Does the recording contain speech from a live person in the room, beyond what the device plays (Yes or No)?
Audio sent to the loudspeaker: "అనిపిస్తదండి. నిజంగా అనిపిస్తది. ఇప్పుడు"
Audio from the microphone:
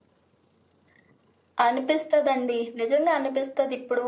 No